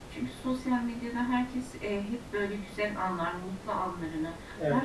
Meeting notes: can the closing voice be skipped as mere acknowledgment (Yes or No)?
Yes